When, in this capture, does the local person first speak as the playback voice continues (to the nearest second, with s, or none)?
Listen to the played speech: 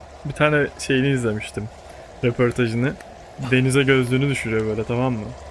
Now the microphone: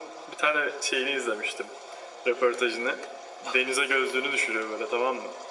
none